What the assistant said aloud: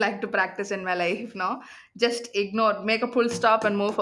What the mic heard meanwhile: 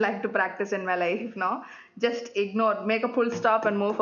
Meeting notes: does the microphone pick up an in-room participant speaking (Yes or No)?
No